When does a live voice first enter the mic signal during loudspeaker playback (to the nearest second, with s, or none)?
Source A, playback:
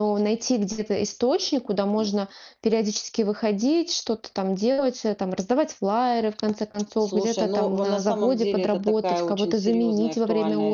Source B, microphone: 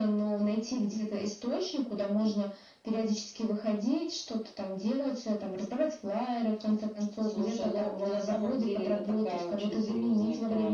none